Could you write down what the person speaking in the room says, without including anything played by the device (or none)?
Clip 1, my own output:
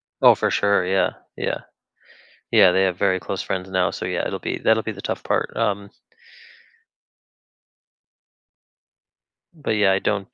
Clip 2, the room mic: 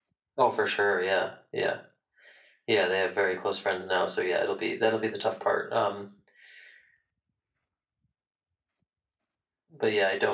none